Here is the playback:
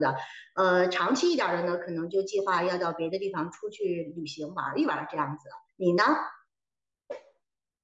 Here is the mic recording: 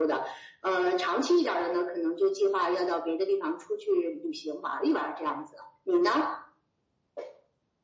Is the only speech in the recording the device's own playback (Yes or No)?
Yes